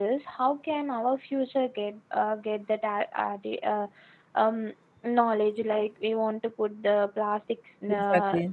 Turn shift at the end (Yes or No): No